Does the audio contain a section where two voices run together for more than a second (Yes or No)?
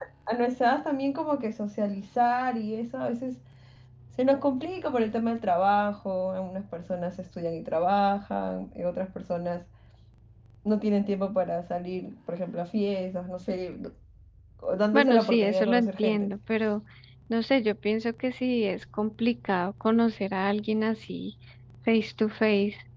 Yes